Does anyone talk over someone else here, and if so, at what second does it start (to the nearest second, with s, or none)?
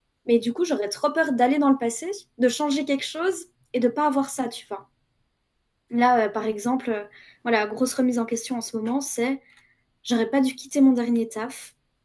none